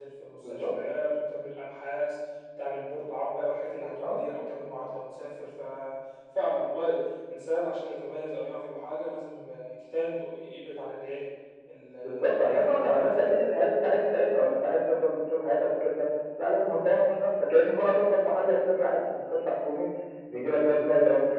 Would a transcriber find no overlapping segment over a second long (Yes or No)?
No